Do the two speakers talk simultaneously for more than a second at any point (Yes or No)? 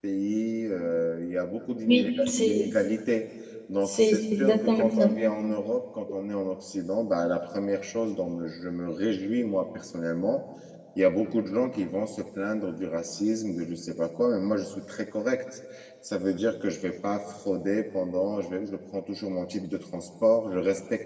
Yes